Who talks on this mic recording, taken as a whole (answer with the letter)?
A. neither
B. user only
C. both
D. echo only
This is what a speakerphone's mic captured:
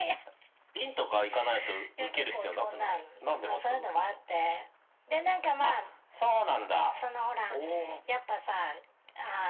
D